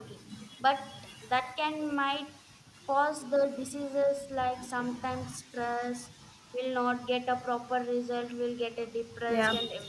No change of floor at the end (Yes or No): No